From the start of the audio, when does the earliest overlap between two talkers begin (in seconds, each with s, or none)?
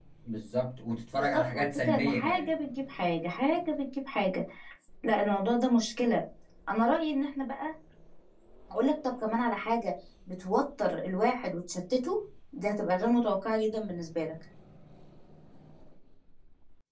1.1 s